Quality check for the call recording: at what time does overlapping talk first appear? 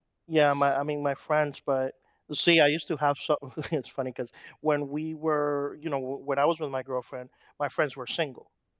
none

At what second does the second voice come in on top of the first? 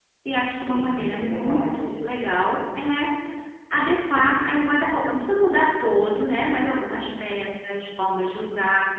0.7 s

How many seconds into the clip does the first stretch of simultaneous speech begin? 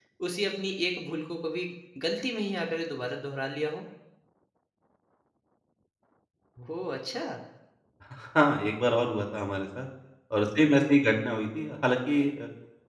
none

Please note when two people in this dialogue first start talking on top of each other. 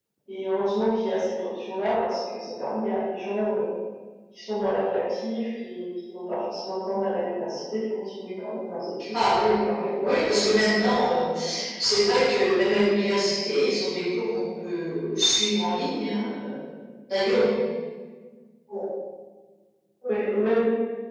9.1 s

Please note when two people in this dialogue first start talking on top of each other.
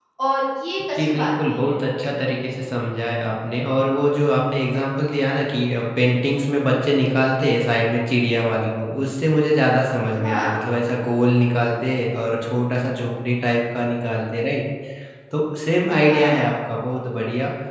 0.9 s

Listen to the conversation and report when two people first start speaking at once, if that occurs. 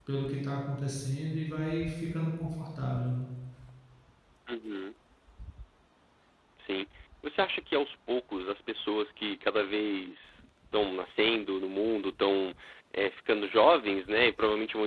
none

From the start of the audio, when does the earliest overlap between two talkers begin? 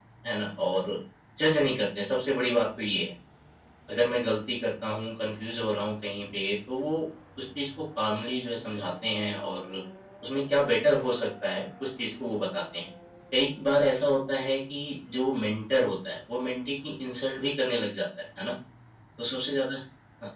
none

